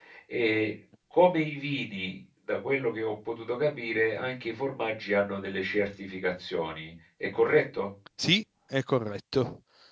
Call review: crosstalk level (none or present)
none